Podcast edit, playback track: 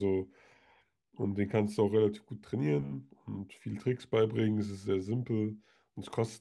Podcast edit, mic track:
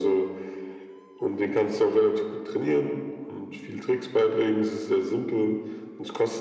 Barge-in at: none

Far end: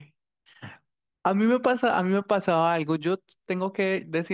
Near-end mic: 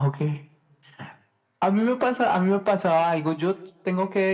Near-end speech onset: none

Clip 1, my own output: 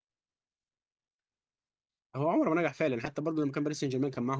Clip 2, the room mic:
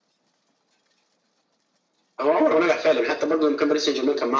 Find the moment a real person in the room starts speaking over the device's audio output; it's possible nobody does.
none

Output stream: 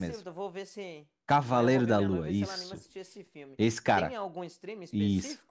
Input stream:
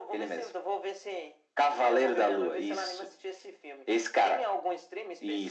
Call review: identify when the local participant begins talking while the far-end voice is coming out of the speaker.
none

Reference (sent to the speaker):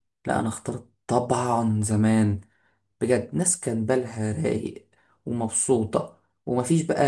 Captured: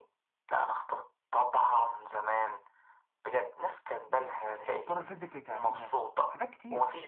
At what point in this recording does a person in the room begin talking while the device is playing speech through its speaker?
4.1 s

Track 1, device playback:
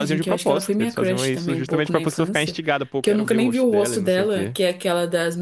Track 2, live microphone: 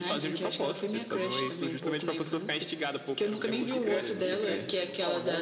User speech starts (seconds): 3.4 s

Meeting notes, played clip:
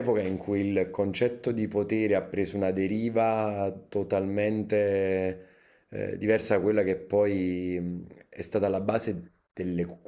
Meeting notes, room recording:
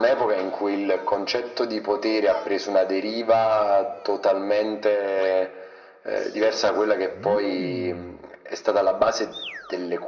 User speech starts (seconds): none

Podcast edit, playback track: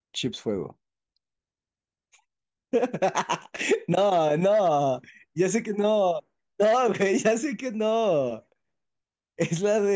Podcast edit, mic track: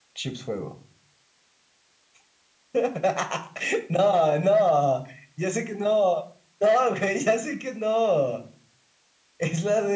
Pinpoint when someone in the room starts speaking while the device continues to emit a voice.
none

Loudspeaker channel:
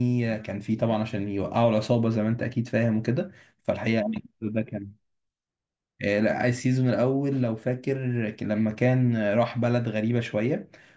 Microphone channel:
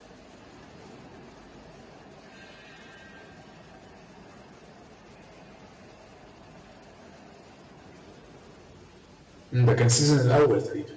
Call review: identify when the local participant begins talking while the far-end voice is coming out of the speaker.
9.5 s

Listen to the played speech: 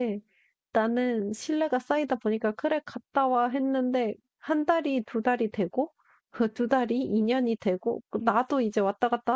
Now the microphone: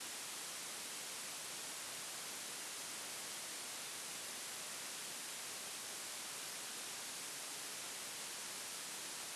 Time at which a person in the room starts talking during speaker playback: none

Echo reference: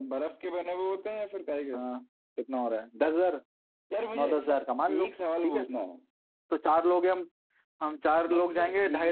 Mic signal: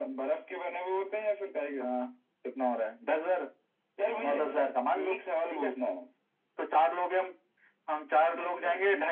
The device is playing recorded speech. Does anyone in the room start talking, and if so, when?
4.1 s

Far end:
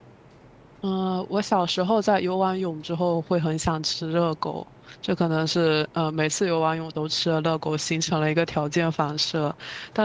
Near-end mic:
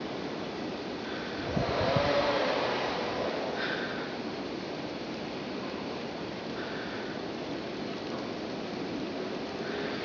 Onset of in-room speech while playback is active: none

